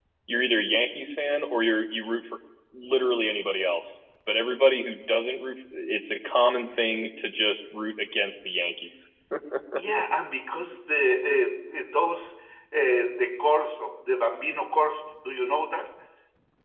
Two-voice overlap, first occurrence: none

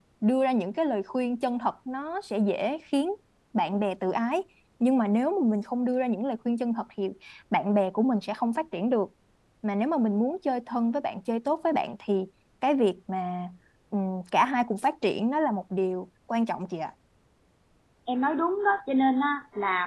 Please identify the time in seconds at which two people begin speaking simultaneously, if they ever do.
none

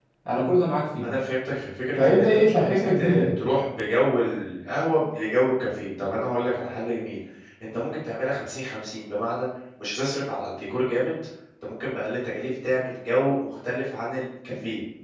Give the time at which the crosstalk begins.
2.0 s

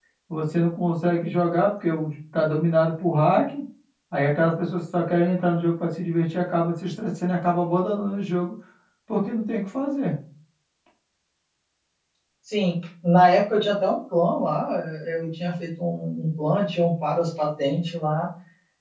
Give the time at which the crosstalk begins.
none

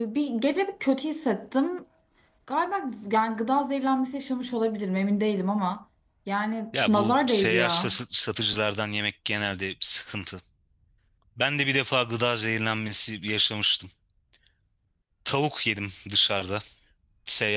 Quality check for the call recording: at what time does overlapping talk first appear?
6.7 s

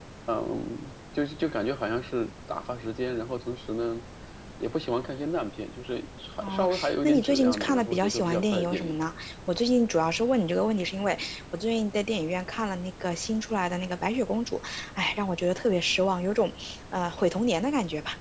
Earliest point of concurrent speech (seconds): 6.4 s

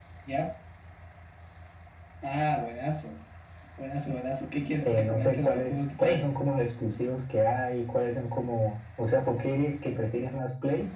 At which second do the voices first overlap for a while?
4.8 s

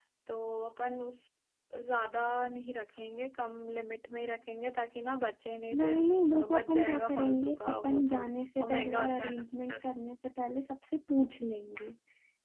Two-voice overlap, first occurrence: 5.8 s

